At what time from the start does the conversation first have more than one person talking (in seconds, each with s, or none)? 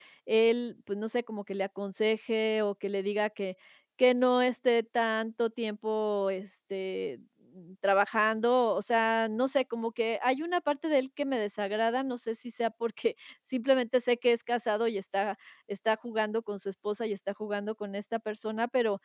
none